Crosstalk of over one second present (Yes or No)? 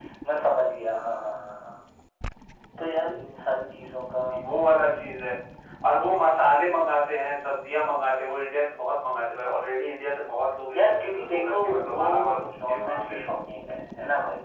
Yes